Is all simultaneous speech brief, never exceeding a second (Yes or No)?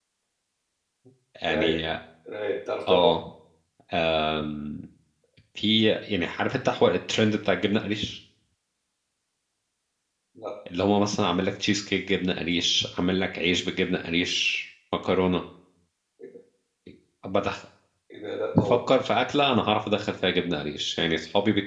Yes